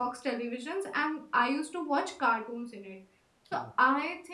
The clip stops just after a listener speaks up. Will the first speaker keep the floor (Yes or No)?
Yes